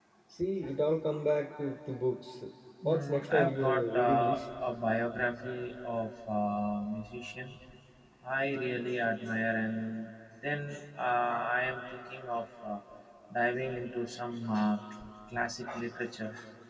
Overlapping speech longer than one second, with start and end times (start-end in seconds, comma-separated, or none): 2.9-4.4